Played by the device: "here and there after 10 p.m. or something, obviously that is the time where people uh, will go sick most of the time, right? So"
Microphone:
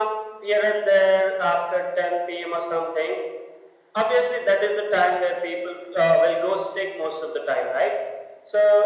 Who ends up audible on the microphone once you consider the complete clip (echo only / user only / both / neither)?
echo only